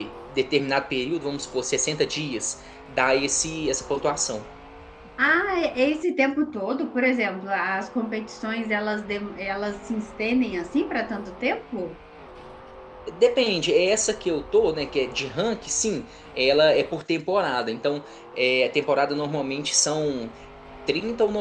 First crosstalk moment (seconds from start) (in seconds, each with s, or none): none